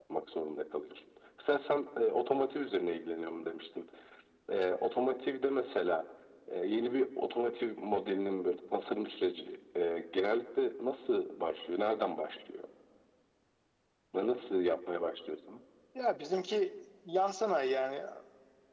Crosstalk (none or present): none